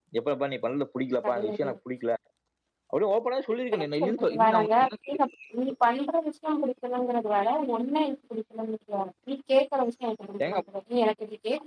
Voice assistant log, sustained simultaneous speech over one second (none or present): present